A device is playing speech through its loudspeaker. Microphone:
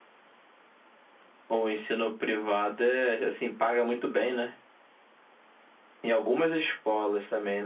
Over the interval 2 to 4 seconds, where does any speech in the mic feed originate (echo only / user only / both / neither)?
echo only